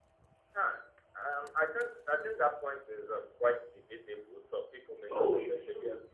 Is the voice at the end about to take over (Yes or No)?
Yes